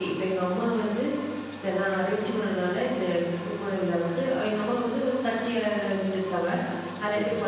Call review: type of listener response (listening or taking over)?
listening